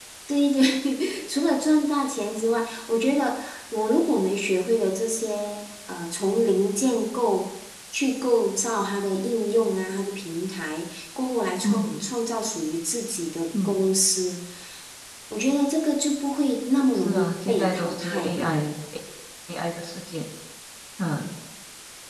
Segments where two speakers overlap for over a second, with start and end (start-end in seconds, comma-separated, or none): 17.1-18.5